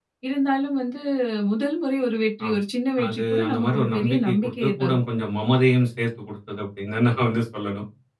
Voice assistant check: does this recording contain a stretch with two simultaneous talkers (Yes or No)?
Yes